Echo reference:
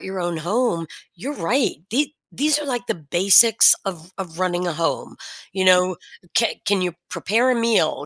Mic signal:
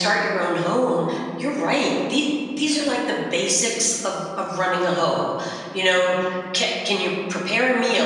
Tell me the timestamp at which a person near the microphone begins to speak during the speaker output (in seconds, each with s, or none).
none